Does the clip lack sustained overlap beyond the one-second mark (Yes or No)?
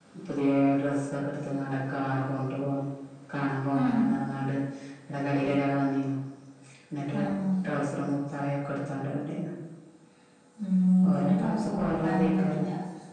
No